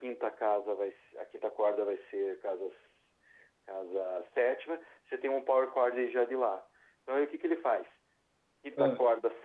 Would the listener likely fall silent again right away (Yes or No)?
Yes